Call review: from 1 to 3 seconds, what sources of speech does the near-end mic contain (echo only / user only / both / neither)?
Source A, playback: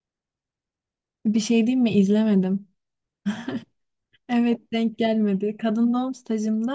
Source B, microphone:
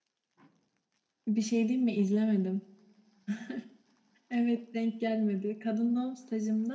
echo only